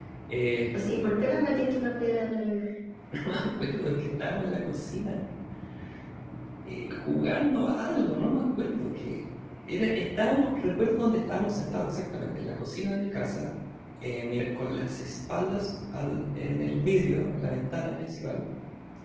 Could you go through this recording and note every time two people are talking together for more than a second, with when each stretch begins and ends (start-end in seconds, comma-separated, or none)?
none